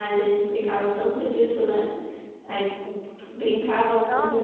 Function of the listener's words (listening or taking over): listening